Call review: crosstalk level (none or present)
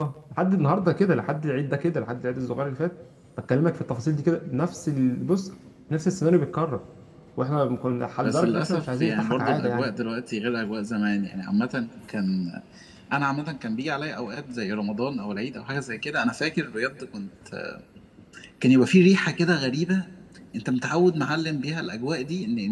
present